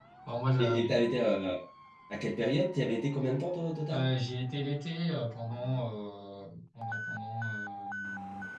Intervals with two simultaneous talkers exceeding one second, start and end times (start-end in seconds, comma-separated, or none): none